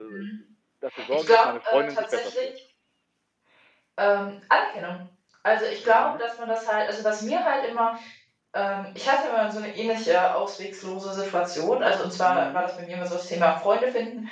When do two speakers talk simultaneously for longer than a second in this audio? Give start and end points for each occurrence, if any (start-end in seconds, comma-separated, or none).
1.1-2.5